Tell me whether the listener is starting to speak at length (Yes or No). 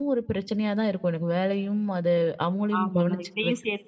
Yes